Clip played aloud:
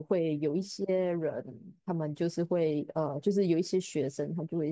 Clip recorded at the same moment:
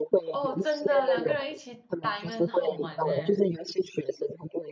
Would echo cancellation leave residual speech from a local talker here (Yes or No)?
Yes